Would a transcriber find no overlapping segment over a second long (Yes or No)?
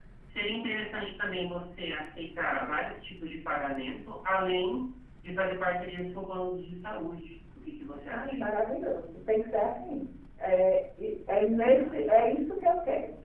Yes